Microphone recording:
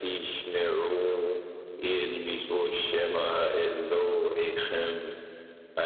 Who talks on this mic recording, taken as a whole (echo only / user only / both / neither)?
echo only